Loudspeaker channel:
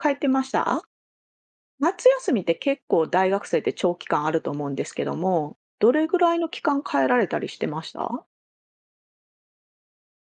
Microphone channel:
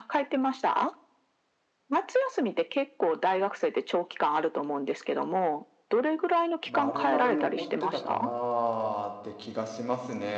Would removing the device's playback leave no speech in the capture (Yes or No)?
No